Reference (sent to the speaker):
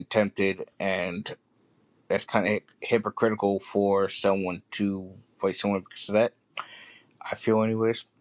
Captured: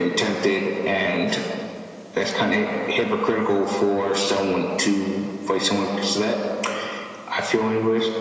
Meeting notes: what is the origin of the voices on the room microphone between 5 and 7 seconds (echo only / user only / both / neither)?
echo only